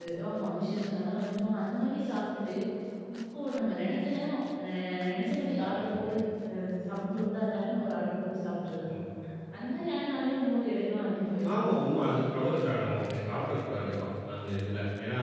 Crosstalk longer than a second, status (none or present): none